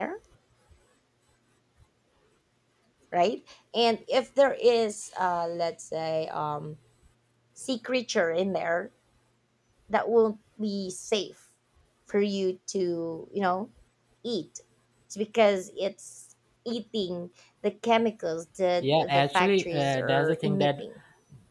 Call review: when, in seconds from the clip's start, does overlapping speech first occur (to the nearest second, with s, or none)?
19 s